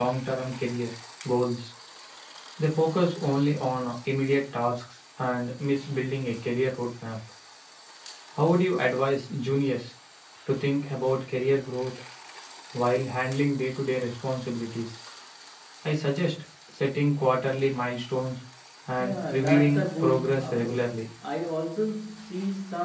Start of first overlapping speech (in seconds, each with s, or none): 19.0 s